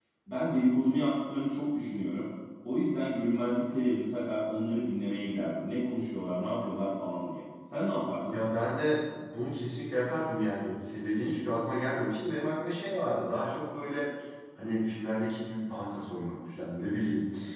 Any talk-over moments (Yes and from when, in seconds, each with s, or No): No